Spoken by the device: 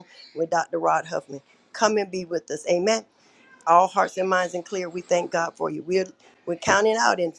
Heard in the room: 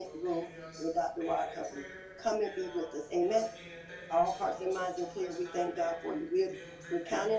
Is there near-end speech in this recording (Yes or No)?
Yes